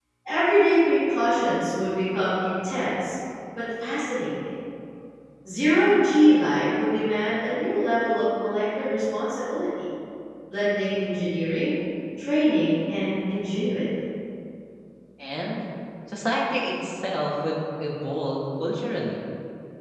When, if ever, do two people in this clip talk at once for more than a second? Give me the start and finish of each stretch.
none

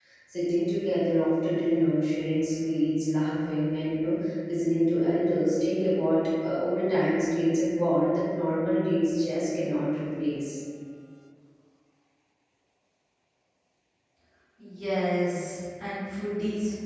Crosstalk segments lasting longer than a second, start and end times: none

